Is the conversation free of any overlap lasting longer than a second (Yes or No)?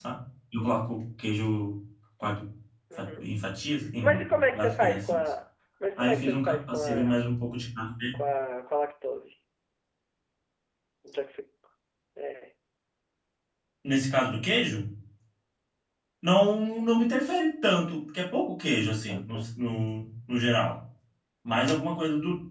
No